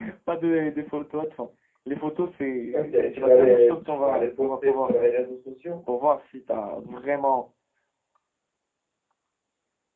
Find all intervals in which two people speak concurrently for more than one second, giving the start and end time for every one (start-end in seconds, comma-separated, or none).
2.7-5.1